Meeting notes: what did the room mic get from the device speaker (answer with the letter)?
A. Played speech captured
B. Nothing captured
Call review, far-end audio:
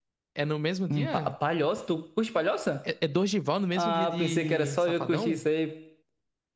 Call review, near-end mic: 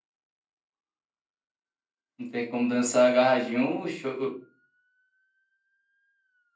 B